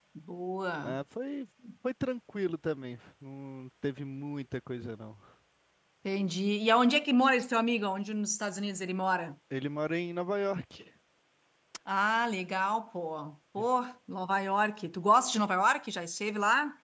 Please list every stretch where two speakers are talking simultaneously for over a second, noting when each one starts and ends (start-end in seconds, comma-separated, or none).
none